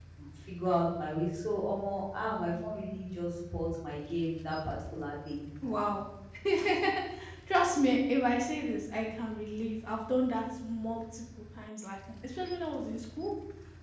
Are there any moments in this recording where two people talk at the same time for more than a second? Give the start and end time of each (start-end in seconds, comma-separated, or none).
none